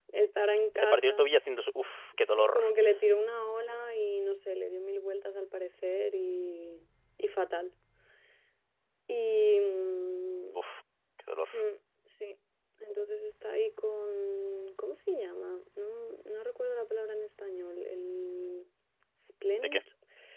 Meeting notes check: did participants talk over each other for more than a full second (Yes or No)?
No